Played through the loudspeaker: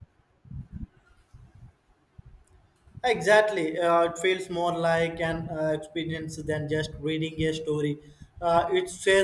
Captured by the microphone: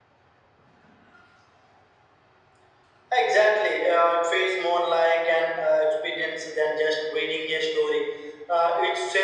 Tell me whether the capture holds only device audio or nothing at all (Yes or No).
Yes